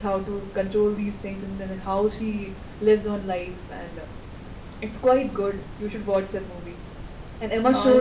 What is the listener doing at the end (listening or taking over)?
listening